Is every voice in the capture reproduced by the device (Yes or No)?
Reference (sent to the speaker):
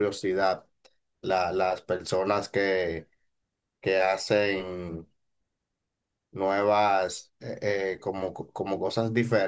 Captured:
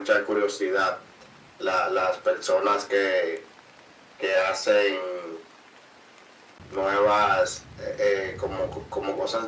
Yes